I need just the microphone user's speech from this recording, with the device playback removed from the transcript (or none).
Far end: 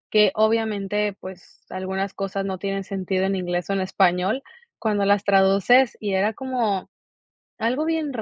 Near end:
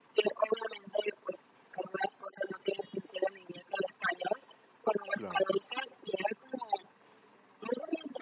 Claro.